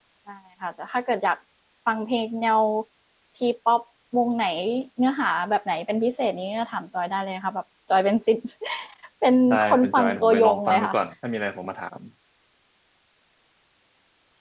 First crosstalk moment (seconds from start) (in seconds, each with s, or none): 9.5 s